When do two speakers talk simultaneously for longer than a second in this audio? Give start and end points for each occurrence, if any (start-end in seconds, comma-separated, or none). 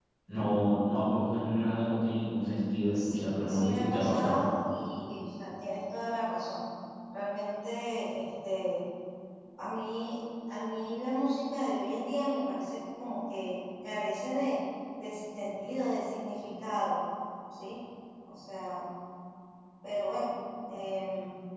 2.9-4.4